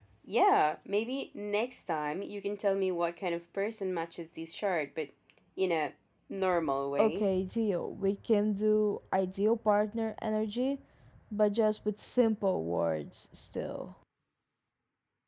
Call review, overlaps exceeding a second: none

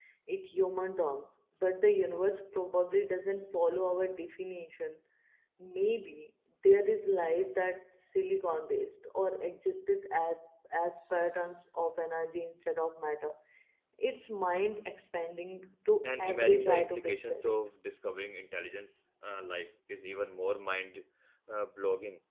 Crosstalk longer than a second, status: present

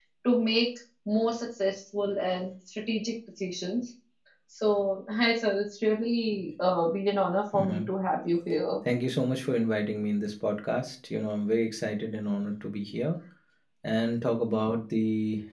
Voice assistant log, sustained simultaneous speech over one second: none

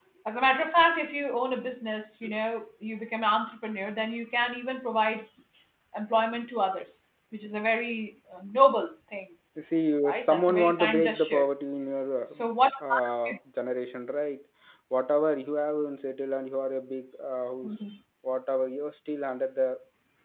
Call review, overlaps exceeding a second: present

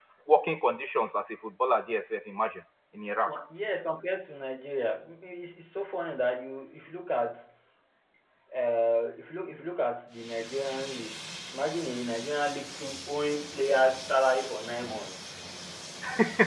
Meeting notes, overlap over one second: none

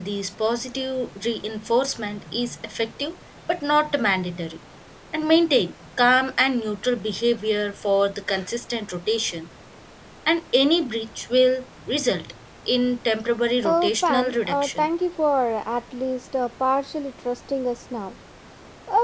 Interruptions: present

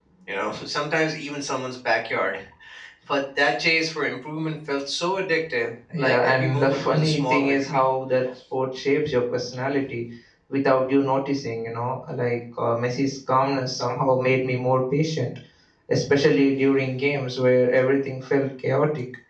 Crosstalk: present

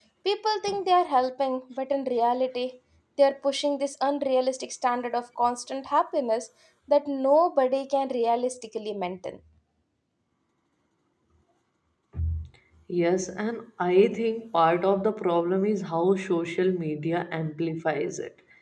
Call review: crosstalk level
none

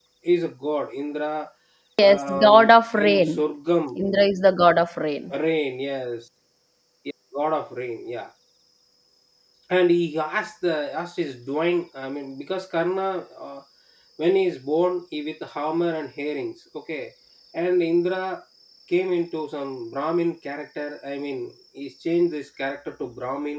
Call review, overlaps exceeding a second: present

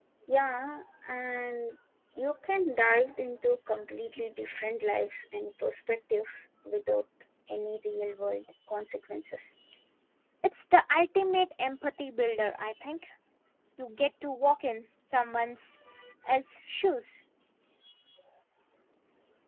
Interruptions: none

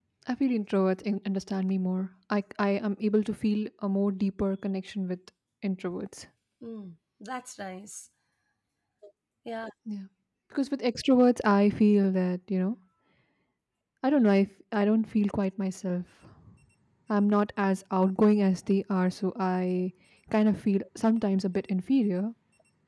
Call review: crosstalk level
none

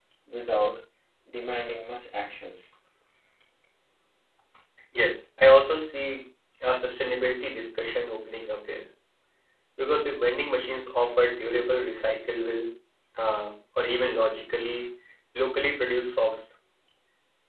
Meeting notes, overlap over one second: none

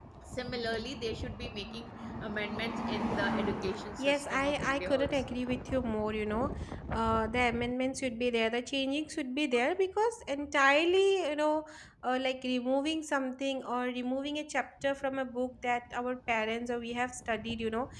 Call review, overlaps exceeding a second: present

